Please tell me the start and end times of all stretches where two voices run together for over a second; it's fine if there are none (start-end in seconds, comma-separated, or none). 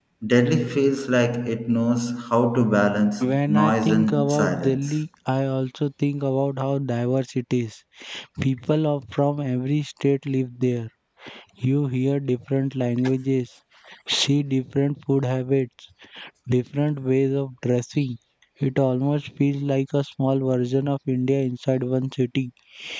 3.2-5.0